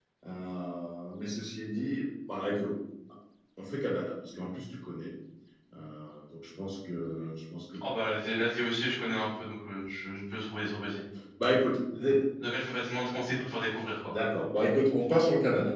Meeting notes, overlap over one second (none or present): none